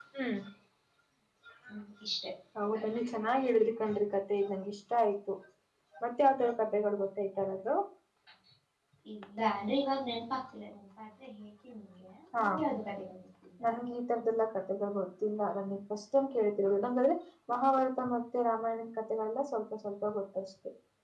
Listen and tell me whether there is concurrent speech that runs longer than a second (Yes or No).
No